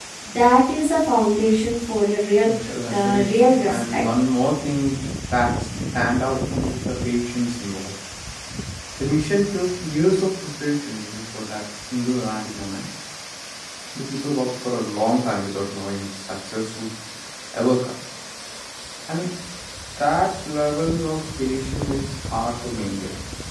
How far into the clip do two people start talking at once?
2.4 s

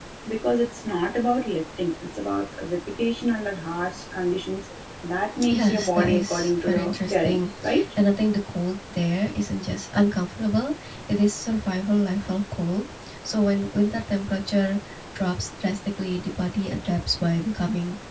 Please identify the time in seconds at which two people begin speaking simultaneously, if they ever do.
5.5 s

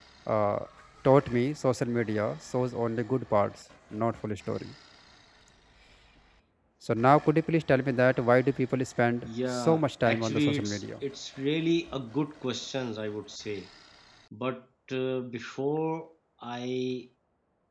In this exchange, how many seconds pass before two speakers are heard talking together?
9.2 s

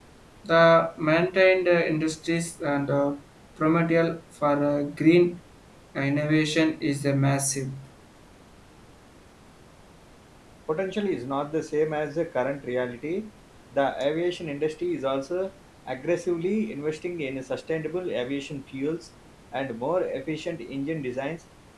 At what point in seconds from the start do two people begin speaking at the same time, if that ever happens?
none

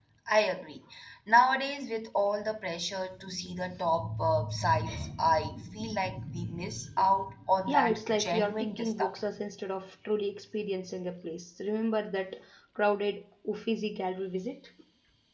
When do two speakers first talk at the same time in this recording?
7.7 s

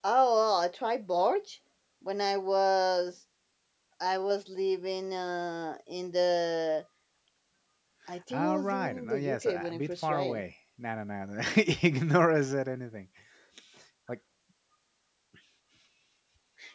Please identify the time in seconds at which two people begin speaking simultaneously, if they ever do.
8.3 s

